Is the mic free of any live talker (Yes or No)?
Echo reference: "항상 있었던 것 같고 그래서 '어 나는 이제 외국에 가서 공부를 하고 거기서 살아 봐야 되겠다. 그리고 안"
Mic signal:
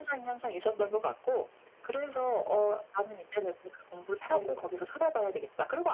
No